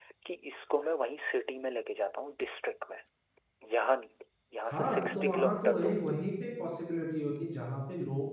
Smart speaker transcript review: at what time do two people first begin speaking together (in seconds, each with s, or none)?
4.7 s